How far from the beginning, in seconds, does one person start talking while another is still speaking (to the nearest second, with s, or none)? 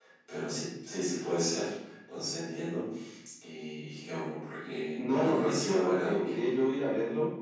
5 s